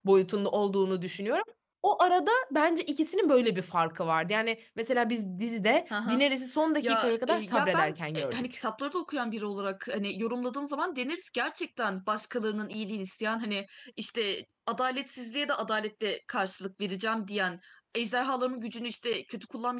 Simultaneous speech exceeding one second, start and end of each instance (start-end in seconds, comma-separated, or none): 6.8-8.4